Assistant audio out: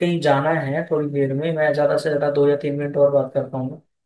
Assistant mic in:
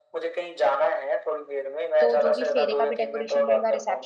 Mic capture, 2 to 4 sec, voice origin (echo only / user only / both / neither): both